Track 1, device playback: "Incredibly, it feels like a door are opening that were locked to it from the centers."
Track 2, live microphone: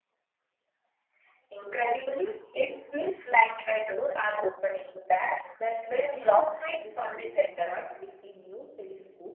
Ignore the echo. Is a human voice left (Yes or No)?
Yes